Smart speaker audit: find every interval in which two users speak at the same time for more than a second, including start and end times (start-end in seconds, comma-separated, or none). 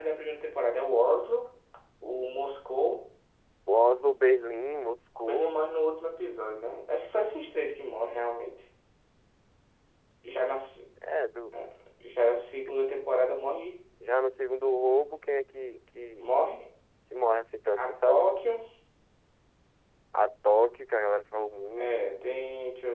none